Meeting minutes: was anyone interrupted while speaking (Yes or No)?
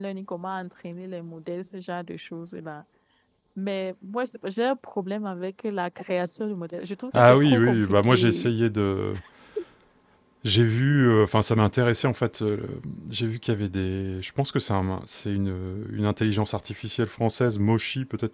Yes